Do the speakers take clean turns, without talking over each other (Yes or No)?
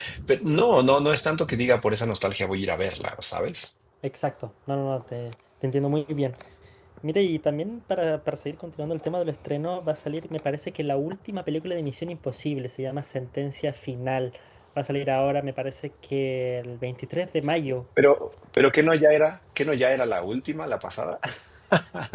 Yes